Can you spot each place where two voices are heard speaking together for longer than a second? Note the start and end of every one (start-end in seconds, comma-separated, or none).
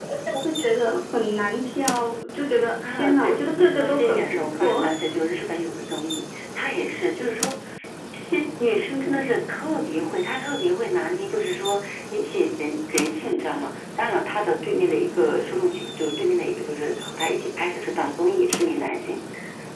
2.9-4.8